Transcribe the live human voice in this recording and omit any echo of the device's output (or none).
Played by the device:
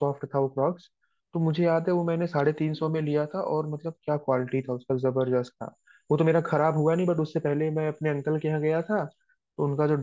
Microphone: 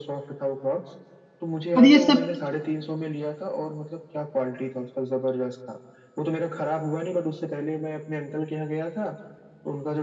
पर ये सब